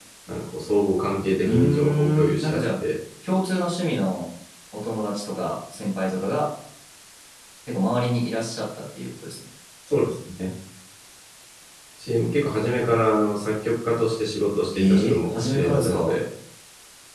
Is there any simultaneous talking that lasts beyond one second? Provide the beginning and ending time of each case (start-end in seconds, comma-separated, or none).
1.4-2.6, 14.7-16.2